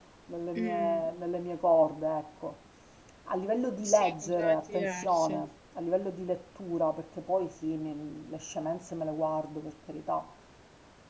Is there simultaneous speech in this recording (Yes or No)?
Yes